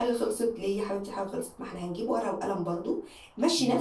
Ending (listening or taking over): listening